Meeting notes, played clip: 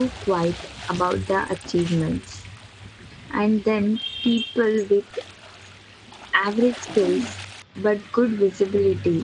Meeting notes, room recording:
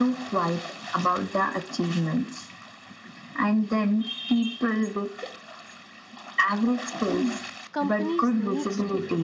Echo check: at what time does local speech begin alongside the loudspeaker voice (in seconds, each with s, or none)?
7.7 s